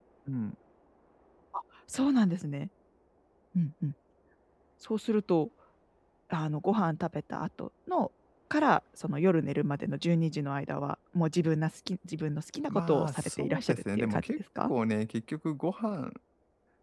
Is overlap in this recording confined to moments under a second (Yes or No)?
No